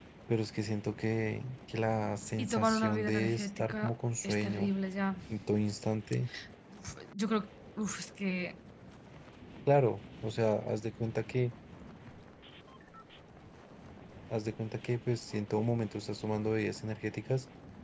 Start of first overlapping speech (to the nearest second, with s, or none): 2 s